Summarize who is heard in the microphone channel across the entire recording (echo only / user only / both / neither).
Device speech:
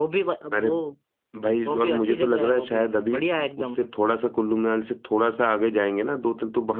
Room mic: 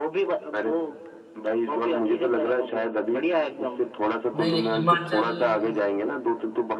both